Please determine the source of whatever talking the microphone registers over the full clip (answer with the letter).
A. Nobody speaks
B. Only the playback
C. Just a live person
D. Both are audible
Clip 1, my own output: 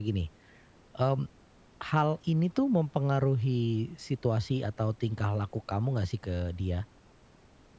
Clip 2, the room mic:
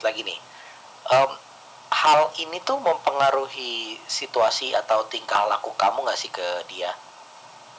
B